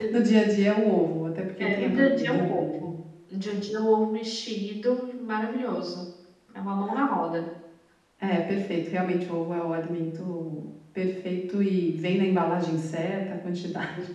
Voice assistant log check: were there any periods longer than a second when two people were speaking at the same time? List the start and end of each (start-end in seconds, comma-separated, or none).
1.6-2.9